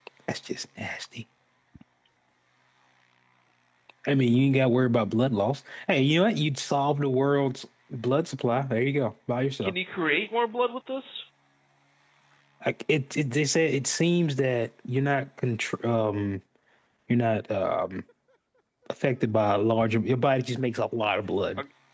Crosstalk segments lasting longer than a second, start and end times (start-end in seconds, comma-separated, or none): none